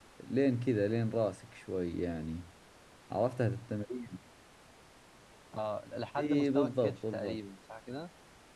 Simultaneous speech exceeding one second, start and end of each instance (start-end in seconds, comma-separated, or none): 6.2-7.4